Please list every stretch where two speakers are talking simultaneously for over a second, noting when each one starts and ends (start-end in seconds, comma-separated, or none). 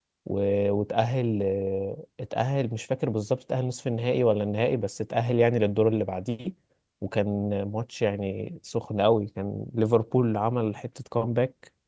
none